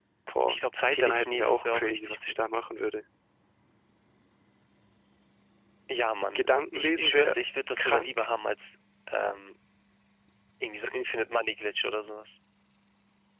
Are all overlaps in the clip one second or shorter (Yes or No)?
No